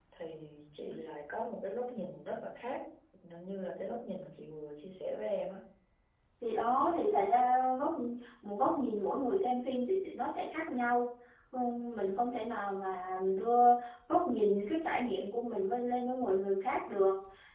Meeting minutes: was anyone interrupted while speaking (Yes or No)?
No